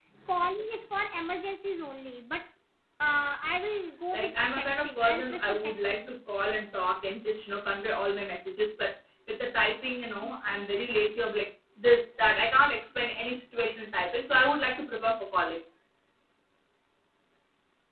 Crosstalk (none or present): present